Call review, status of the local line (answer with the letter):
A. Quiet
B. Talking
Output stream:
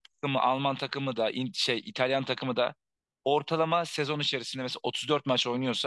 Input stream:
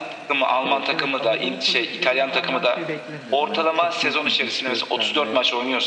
B